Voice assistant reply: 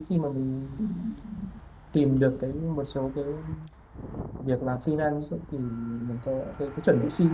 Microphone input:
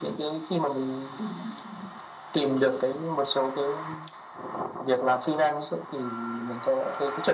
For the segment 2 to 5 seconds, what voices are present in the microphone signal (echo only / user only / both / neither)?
echo only